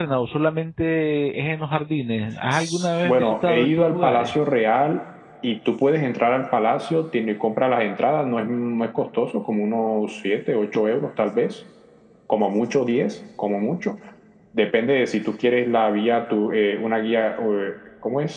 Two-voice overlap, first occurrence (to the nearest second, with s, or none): 3 s